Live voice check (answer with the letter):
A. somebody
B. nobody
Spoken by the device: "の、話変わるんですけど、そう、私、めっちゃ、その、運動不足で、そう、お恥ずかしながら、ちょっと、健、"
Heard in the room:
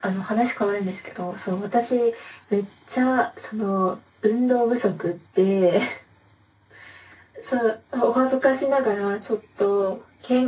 B